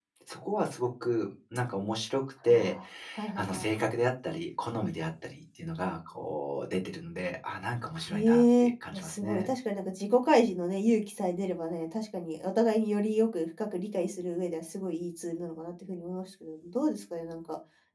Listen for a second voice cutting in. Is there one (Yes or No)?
Yes